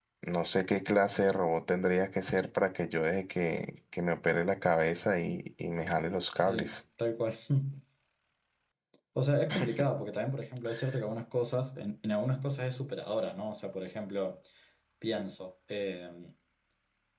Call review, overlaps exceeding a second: none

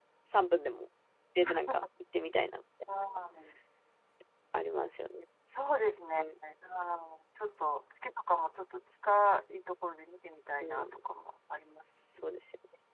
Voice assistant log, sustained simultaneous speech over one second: none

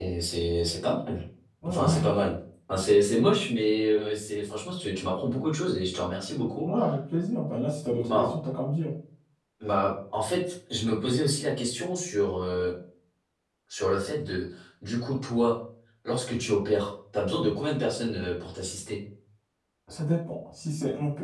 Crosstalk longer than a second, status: none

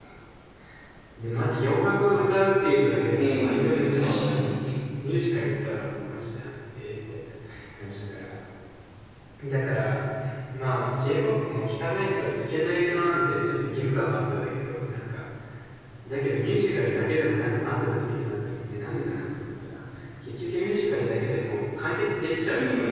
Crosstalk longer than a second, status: present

